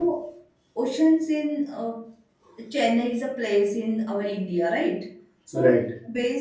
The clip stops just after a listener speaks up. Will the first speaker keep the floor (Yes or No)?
Yes